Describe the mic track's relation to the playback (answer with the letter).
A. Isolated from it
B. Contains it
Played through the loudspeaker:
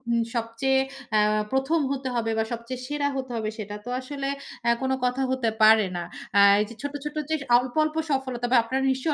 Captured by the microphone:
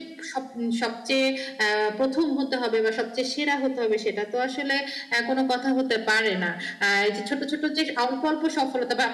B